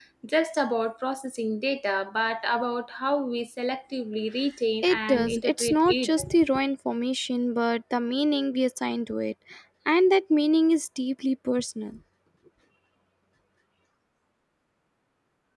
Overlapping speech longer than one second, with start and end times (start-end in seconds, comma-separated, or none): 4.8-6.1